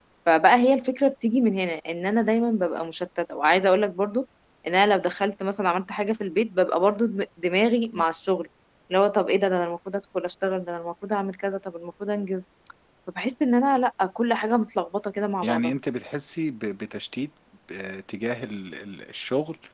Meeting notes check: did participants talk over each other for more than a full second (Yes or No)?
No